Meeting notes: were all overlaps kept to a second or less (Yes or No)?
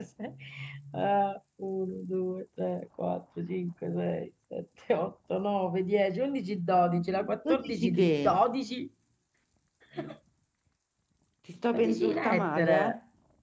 No